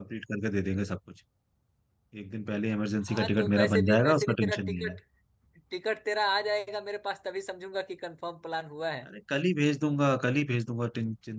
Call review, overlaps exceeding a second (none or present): present